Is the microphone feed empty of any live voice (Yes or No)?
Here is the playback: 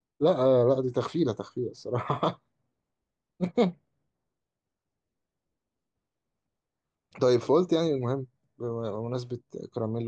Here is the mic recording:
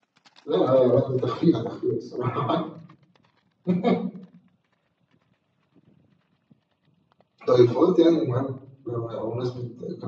Yes